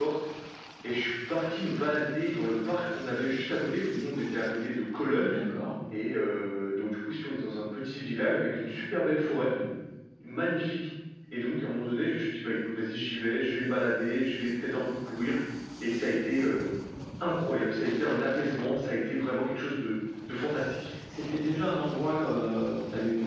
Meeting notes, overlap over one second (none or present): none